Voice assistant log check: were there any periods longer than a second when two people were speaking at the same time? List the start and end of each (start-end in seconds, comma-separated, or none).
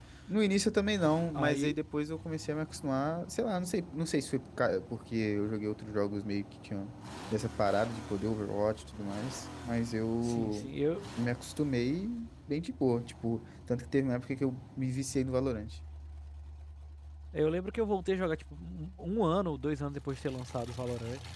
none